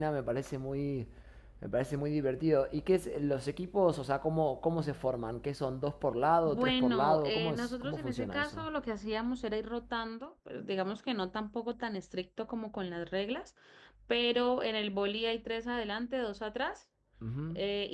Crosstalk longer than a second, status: present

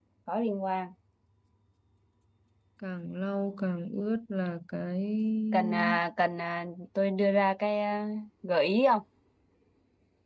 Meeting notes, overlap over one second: none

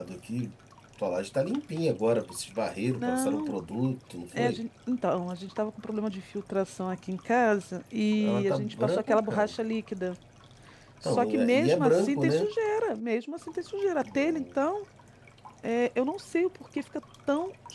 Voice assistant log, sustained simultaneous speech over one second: present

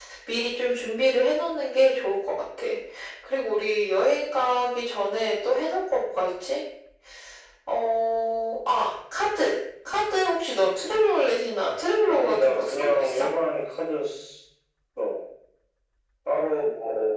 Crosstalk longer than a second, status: present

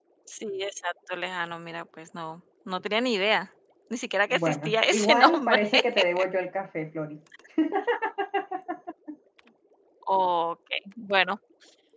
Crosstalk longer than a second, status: present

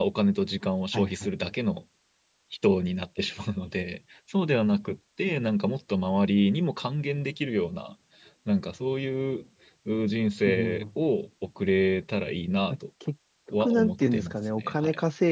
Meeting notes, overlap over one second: present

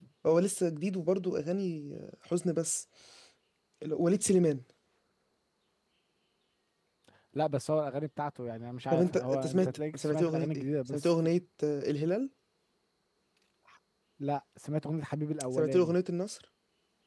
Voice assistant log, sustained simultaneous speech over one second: present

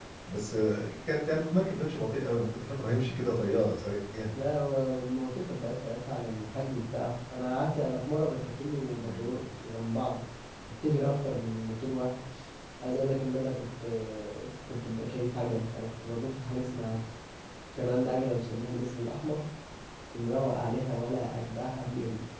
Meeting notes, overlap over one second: none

